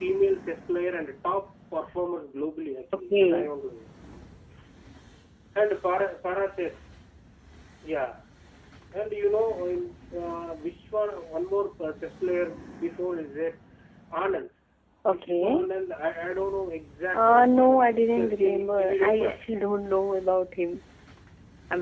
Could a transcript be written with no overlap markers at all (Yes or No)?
No